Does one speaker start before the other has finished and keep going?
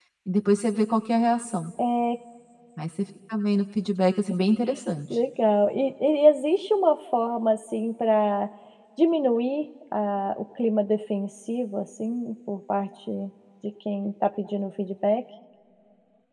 No

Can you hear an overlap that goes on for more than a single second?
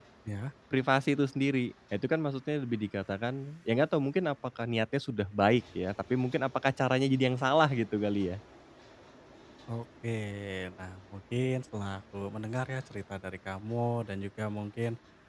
No

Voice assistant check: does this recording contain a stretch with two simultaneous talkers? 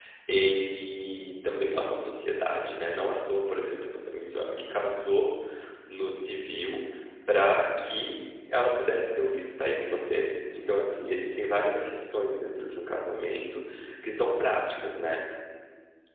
No

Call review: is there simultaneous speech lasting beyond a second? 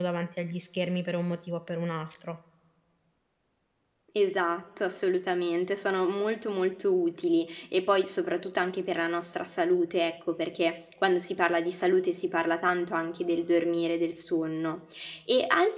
No

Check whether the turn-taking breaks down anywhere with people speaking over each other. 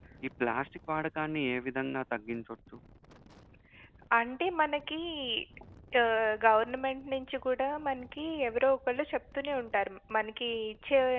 No

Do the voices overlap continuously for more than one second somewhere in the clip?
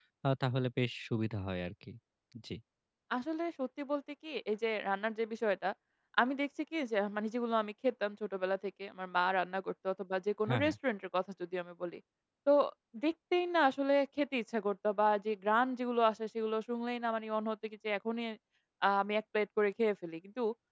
No

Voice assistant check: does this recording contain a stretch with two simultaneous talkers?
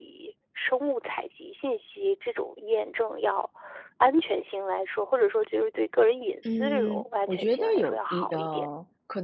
Yes, from 6.4 s

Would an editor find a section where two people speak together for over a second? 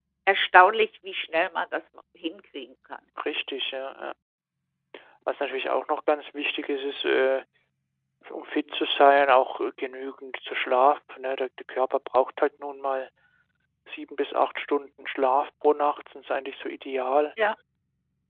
No

